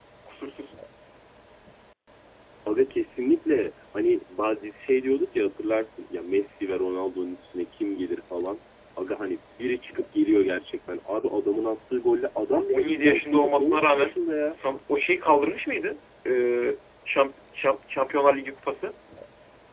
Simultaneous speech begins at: 12.7 s

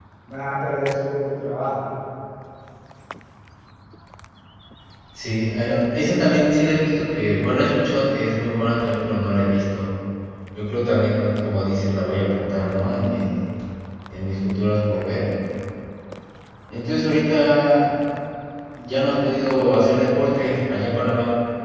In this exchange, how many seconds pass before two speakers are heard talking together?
none

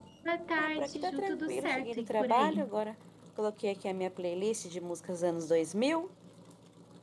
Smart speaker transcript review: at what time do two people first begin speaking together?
0.6 s

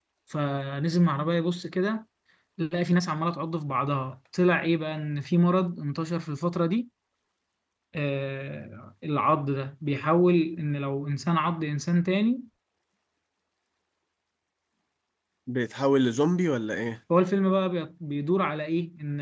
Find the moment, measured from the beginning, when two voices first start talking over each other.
none

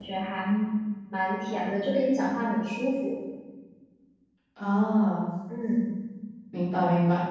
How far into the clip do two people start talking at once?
none

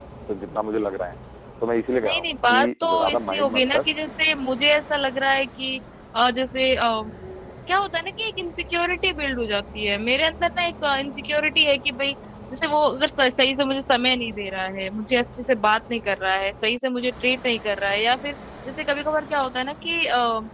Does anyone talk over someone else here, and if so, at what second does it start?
2.0 s

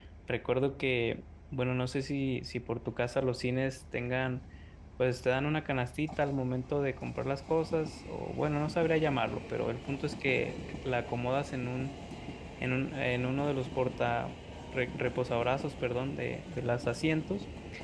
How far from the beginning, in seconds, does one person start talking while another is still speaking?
none

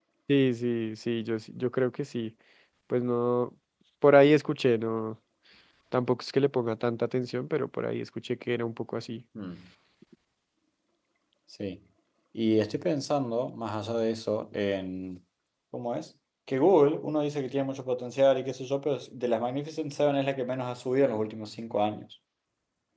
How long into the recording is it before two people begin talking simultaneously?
none

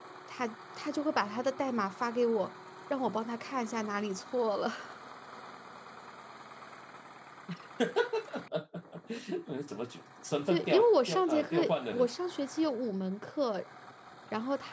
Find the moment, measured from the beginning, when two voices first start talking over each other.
10.5 s

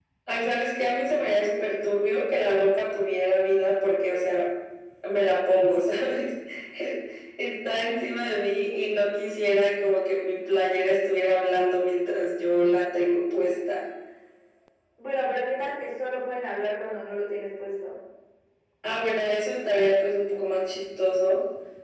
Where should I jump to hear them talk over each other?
none

